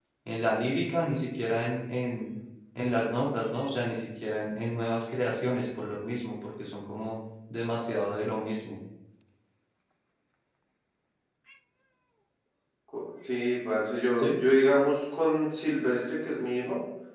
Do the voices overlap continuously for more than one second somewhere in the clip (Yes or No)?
No